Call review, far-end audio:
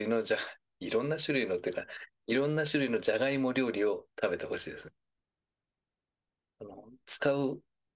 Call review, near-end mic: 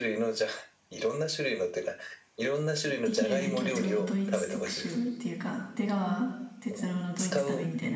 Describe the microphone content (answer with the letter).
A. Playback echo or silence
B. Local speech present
B